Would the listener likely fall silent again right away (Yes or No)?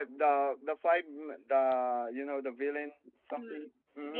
No